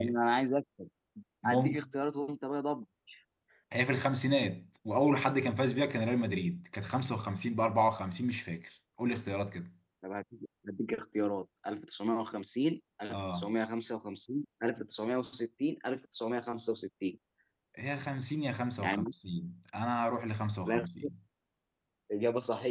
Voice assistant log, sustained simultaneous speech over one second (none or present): none